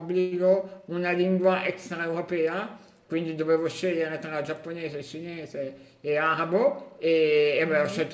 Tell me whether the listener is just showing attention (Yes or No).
Yes